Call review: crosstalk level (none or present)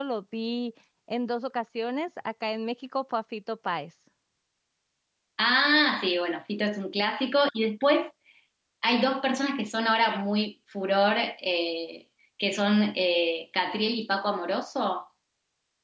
none